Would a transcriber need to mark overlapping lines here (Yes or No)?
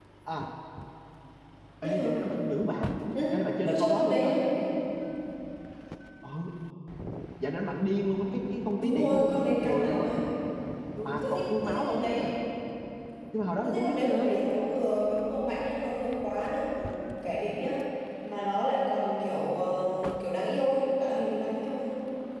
Yes